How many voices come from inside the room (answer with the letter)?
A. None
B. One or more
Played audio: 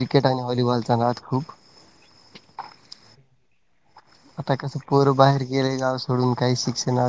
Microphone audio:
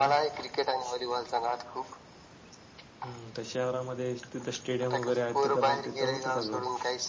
B